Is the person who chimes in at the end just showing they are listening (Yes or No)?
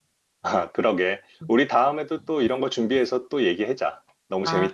No